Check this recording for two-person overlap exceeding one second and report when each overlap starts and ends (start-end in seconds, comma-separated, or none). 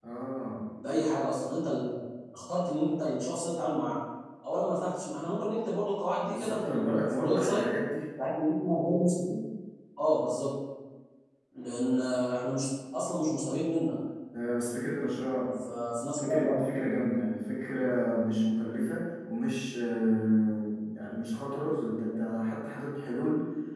6.2-7.6